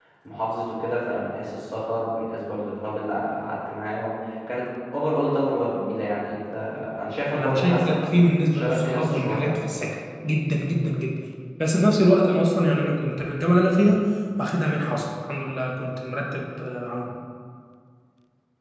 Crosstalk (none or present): present